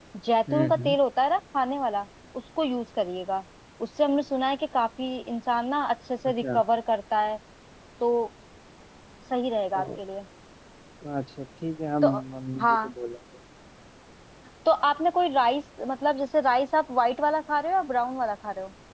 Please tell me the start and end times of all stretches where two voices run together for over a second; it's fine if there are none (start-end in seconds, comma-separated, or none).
none